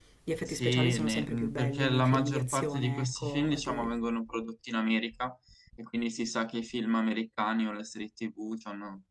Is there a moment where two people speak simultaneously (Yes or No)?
Yes